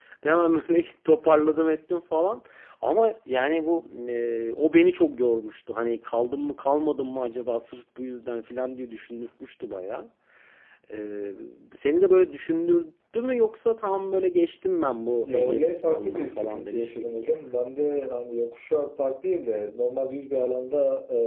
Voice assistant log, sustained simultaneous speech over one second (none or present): present